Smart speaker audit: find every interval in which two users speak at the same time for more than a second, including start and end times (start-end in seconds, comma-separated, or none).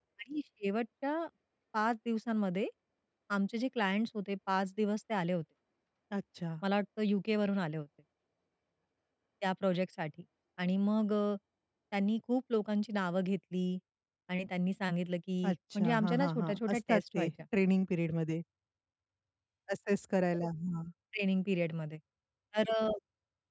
15.4-17.3